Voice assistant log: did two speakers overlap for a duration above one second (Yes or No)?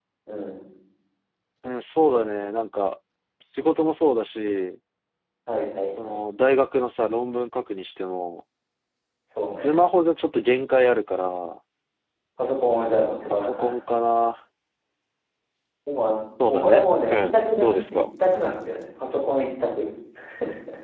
Yes